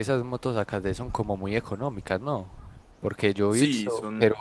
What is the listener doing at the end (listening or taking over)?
taking over